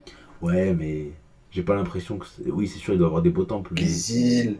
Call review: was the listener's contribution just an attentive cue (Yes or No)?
No